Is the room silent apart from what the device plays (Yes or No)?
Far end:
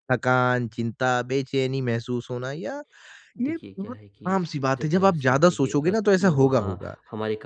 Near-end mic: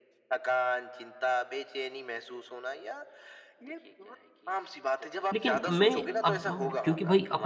No